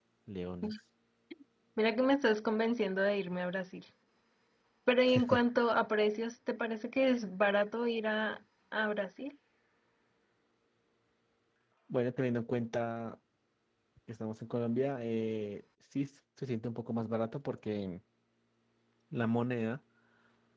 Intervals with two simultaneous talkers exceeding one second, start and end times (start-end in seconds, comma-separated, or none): none